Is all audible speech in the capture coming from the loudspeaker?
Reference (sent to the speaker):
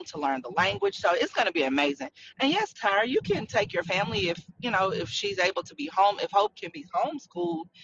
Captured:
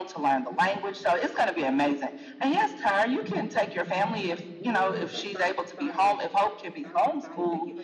No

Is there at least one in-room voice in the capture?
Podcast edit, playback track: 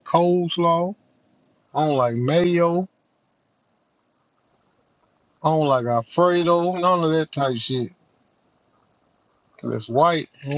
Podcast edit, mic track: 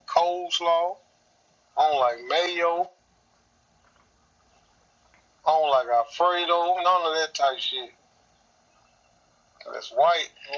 No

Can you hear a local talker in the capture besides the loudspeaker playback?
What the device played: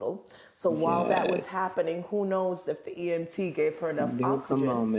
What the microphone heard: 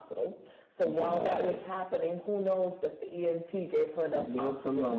No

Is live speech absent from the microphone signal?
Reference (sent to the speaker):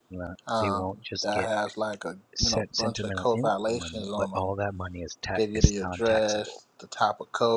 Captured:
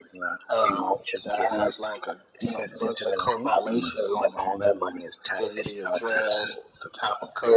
Yes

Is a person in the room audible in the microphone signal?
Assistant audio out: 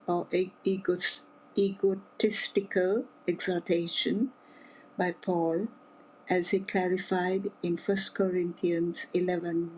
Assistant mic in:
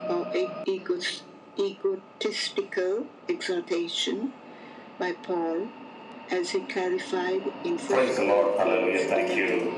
Yes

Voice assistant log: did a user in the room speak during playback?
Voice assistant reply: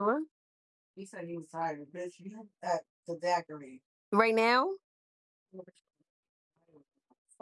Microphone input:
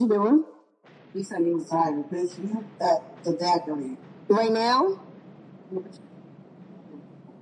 No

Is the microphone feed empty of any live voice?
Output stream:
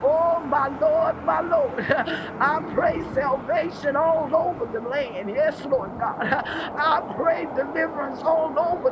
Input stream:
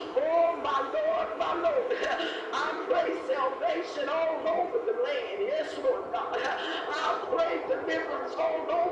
Yes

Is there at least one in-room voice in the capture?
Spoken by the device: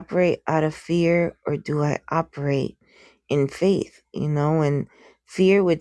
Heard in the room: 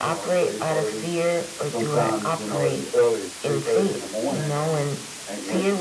Yes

